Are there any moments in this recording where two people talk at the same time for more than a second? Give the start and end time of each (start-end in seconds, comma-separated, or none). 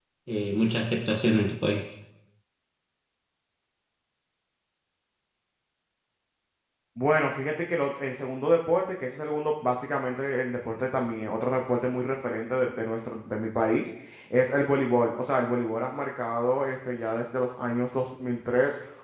none